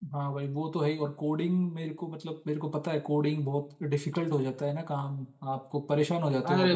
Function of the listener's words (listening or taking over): taking over